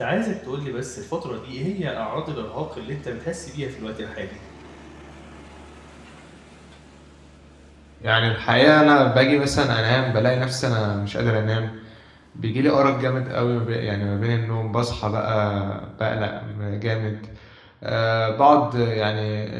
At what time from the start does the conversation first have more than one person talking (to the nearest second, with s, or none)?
none